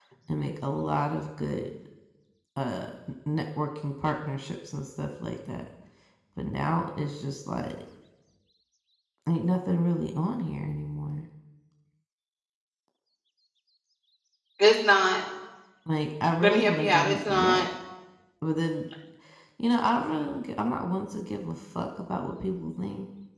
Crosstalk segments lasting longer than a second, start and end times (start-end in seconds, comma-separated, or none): 16.4-17.7